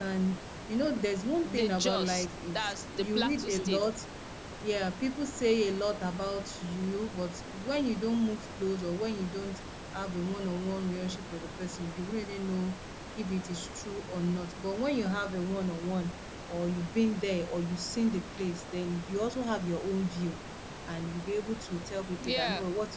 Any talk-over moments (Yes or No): Yes